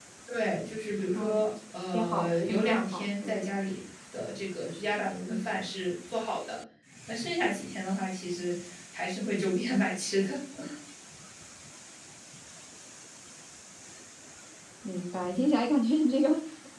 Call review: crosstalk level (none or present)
present